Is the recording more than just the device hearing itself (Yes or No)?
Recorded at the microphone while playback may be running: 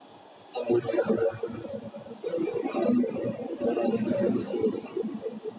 Yes